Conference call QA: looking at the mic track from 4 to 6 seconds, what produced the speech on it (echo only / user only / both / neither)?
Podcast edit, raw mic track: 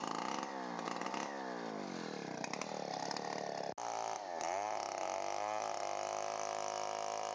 neither